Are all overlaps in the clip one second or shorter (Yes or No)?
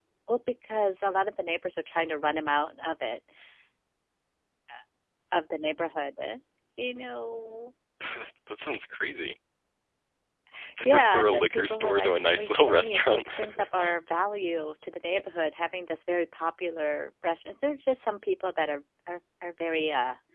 No